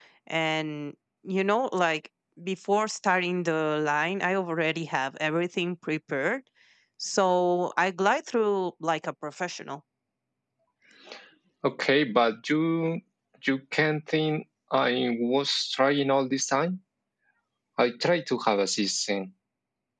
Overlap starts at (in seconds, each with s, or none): none